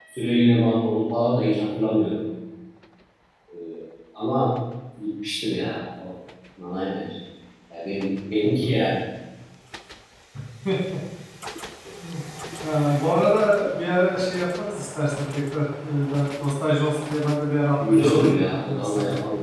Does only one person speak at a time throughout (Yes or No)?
No